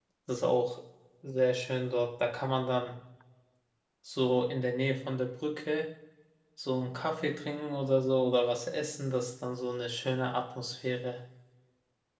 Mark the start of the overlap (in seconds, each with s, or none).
none